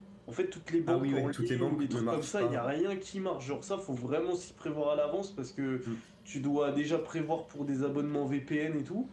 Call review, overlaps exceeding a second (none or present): present